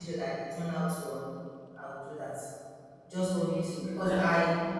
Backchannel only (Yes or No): Yes